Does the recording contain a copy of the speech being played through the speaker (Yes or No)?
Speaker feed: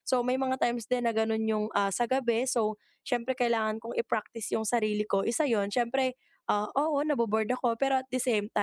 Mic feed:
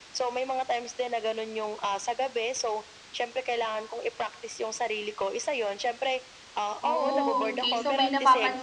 Yes